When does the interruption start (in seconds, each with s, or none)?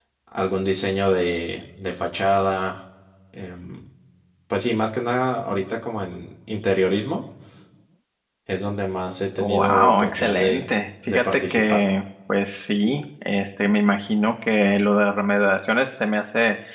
9.4 s